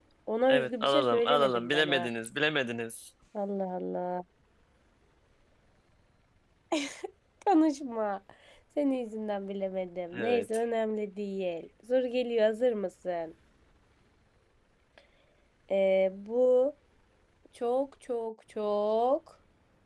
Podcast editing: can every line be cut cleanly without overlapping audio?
No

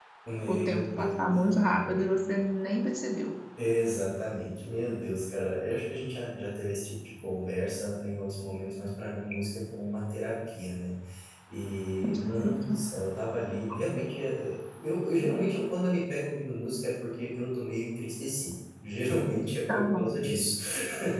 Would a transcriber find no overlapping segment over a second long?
No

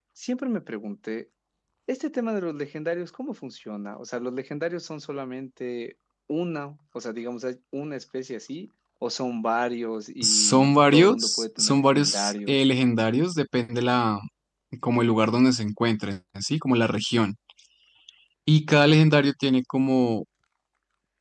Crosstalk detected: Yes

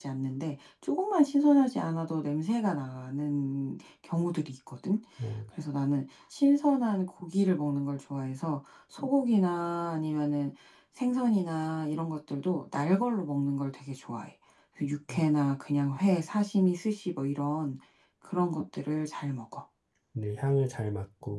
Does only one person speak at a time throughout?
Yes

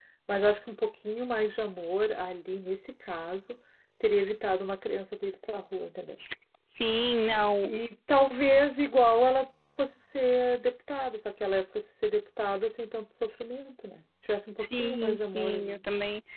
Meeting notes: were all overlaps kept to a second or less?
No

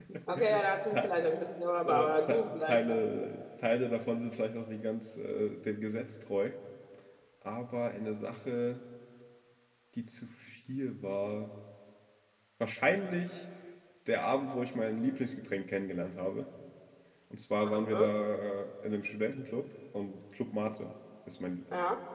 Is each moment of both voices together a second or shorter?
No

